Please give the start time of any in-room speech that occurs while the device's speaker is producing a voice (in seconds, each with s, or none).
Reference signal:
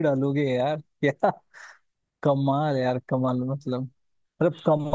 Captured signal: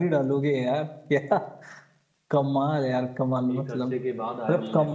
3.5 s